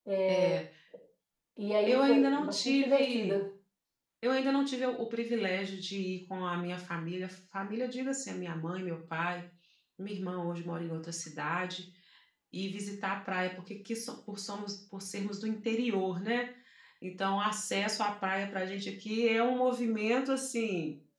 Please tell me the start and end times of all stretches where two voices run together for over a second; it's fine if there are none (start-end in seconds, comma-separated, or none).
1.9-3.4